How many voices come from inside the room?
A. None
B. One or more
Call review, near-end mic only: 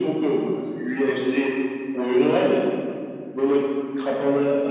A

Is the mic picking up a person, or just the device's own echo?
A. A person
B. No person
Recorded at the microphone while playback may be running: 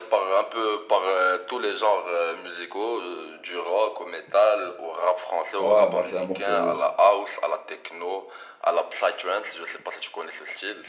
A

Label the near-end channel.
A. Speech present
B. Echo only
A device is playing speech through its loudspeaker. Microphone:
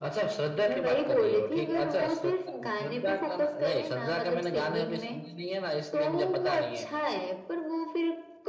B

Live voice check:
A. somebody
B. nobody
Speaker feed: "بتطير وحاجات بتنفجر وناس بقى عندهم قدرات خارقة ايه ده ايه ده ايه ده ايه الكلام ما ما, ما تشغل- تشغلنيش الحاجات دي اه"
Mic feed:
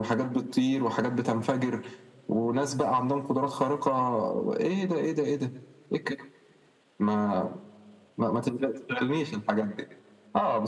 B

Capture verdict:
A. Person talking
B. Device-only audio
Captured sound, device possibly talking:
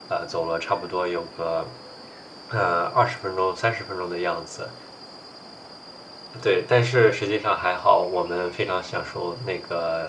A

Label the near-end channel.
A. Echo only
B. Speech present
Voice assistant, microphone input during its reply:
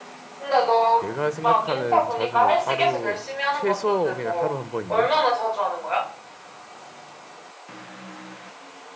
B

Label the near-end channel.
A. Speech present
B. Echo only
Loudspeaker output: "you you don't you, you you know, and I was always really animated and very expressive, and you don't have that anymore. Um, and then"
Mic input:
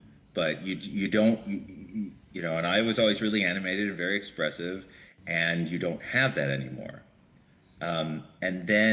B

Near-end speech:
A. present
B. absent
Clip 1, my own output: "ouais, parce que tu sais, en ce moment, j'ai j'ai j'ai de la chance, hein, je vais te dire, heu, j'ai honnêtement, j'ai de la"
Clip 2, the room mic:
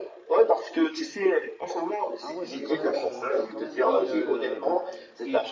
A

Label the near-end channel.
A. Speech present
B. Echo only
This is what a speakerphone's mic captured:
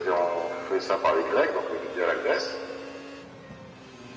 B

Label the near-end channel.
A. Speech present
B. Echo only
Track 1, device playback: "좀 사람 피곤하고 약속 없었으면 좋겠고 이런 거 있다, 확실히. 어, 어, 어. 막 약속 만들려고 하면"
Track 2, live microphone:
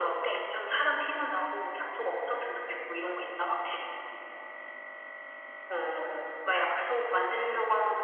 B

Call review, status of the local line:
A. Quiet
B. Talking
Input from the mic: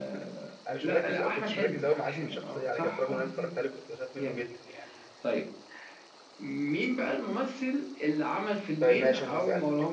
B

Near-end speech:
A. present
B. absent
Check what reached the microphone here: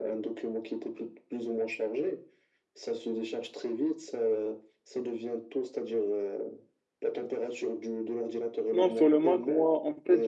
A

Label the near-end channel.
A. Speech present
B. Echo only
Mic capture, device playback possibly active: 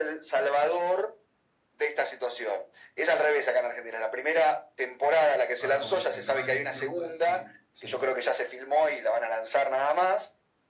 A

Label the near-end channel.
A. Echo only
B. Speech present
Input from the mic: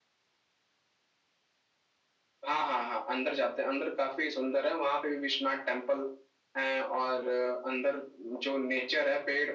A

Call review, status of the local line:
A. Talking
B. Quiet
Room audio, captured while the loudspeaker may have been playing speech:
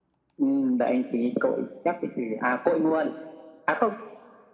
B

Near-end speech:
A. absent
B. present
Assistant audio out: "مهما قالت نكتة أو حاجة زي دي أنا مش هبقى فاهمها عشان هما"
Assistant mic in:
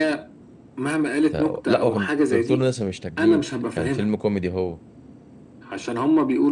B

